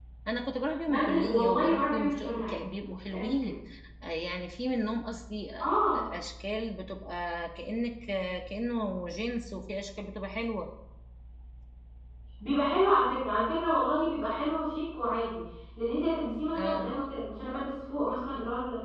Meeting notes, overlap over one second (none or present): present